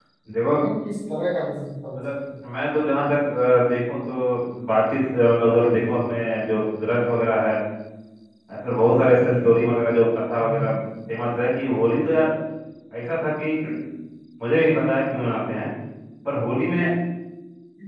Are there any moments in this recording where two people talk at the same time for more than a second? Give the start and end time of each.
none

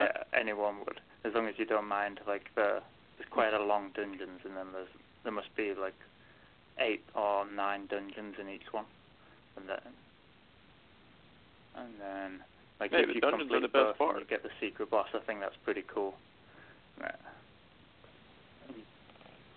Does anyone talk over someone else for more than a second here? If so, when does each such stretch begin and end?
12.9-14.2

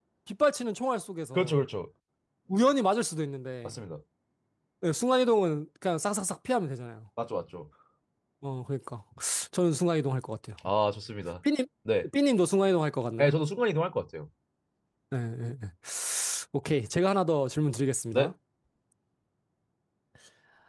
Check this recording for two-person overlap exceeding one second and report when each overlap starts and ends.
none

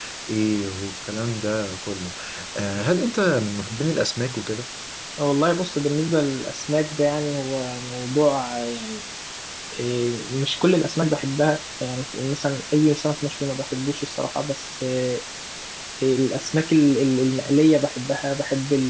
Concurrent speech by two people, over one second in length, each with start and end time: none

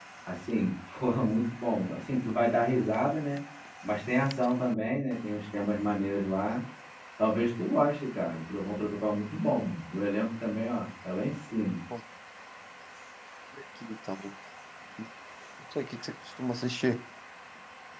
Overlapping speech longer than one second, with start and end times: none

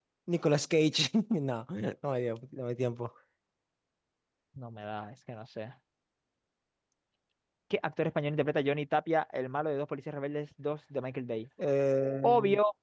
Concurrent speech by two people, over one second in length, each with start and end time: none

